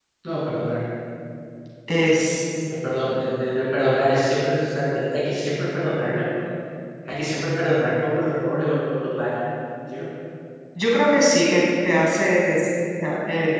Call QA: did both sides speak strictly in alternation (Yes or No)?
Yes